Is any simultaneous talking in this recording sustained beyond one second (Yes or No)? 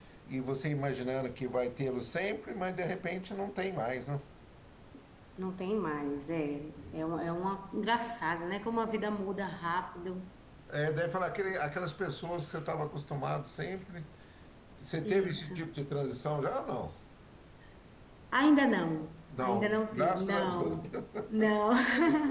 Yes